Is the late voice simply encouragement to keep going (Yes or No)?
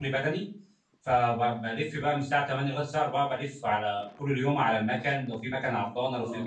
Yes